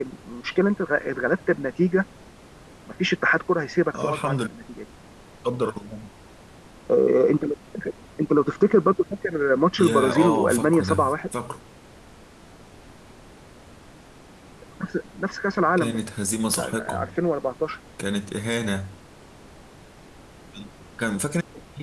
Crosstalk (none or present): present